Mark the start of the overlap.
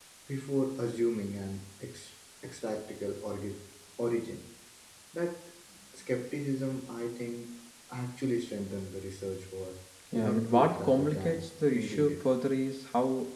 10.1 s

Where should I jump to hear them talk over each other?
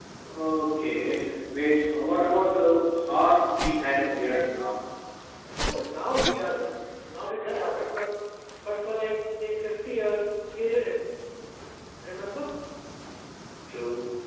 none

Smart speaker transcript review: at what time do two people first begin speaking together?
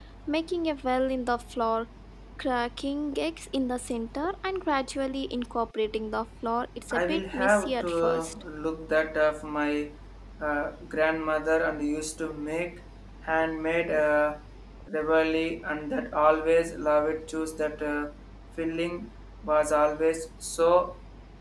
6.9 s

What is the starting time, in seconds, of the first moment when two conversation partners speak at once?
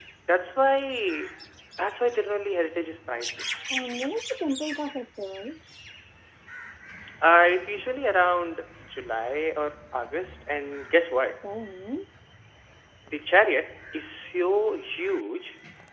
none

